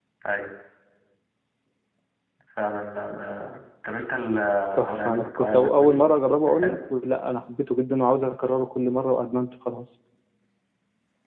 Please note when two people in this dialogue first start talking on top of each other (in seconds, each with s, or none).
4.8 s